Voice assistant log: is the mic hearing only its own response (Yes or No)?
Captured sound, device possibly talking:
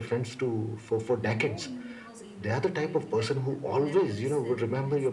No